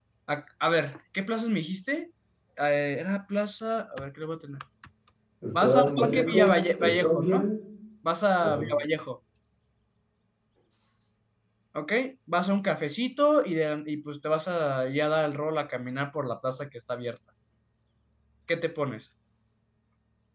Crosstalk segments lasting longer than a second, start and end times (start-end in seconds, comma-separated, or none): 5.6-7.5